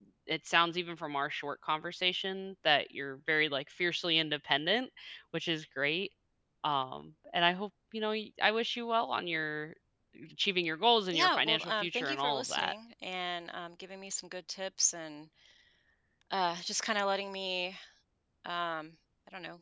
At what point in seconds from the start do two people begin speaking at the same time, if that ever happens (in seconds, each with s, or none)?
11.1 s